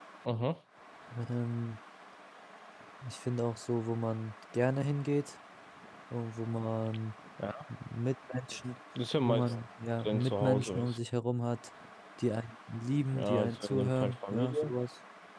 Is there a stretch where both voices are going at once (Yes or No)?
Yes